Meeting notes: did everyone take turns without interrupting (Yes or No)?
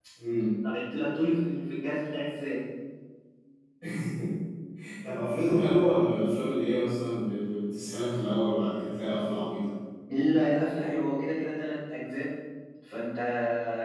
Yes